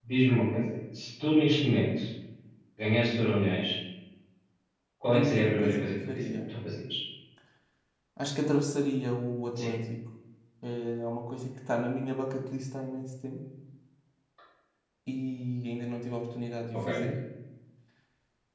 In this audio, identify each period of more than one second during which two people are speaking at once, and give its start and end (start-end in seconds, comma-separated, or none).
5.1-6.4